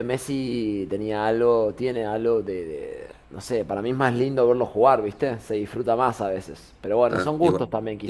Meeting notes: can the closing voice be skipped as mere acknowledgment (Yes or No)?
No